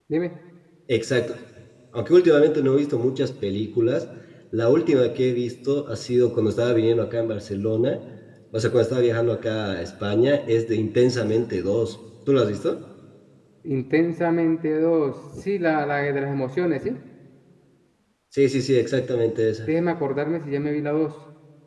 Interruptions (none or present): none